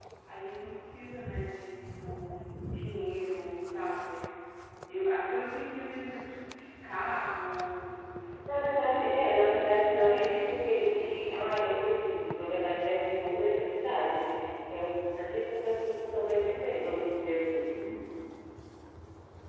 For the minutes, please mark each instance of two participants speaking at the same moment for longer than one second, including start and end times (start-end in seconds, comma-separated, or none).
8.5-11.4